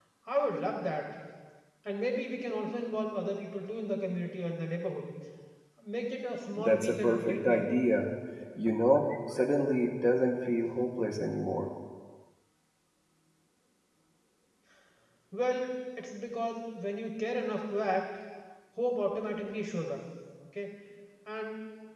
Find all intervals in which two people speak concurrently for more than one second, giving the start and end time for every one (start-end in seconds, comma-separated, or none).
6.6-7.8